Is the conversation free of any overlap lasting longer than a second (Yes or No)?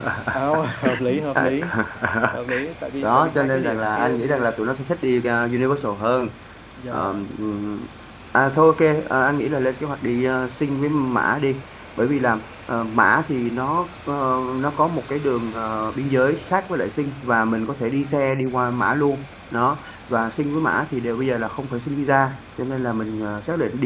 No